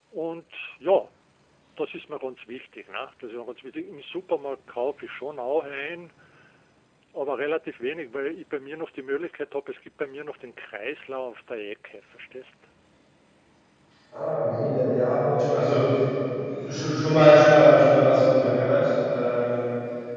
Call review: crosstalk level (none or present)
none